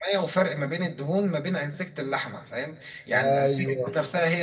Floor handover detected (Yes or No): No